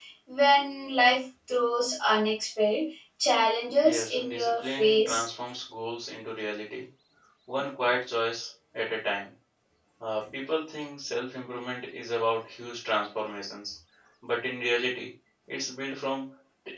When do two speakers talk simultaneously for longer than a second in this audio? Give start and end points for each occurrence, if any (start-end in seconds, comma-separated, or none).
3.8-5.2